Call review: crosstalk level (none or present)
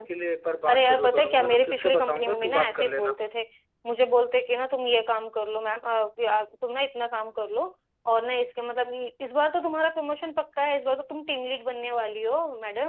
present